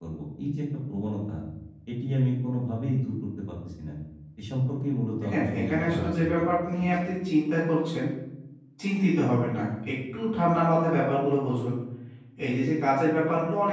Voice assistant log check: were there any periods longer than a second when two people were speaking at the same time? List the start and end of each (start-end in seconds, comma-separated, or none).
5.2-6.8